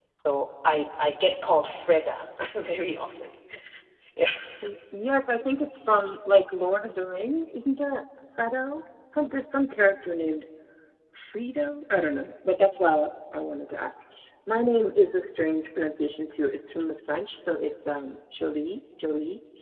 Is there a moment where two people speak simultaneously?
No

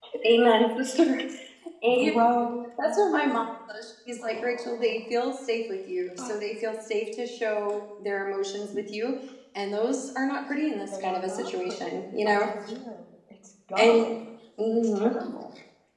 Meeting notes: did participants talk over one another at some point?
Yes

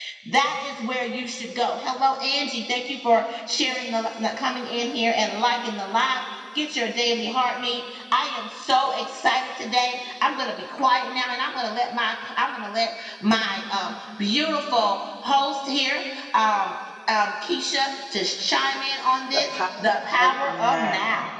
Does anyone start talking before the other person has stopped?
Yes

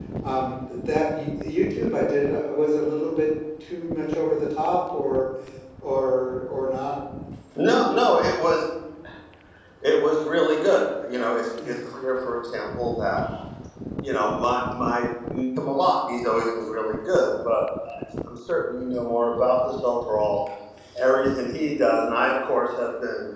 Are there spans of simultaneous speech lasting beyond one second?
No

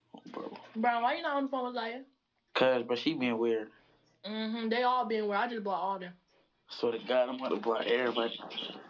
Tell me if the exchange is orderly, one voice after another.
Yes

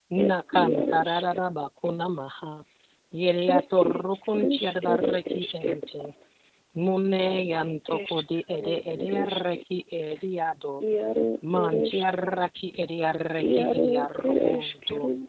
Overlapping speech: Yes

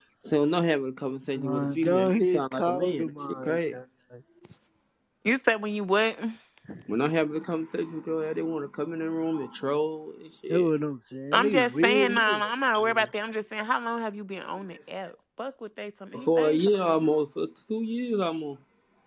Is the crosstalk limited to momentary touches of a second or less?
No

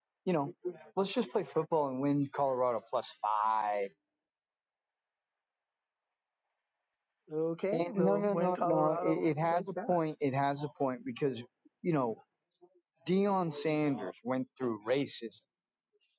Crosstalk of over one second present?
Yes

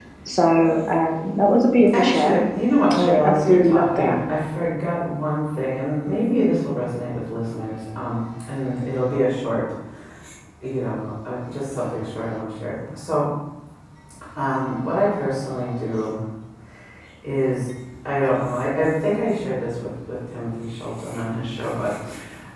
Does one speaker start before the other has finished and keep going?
Yes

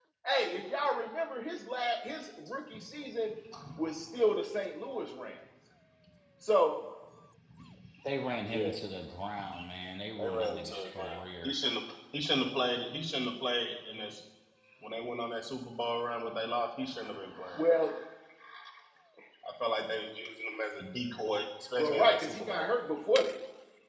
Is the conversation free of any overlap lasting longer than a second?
No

